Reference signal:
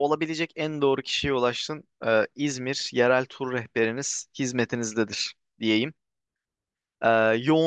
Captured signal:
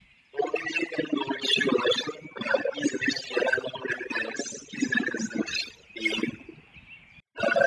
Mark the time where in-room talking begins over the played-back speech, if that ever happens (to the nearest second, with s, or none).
none